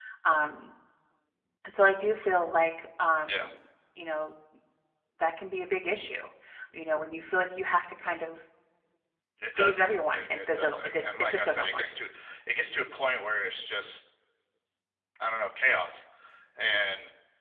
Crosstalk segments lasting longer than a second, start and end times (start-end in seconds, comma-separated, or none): 9.5-11.9